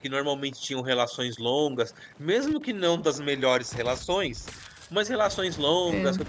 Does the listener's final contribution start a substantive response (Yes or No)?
No